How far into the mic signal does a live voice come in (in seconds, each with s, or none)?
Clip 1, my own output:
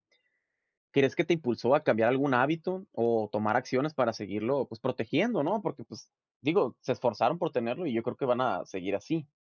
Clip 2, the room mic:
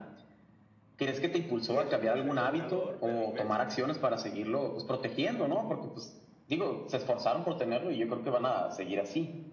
1.6 s